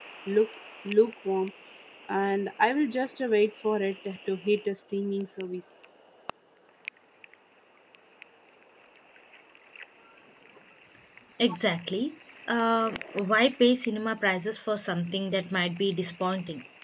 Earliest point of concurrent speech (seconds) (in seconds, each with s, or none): none